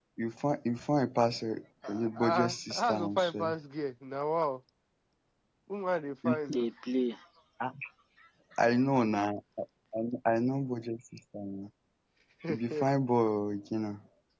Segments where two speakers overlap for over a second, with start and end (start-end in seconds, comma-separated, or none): 1.9-3.5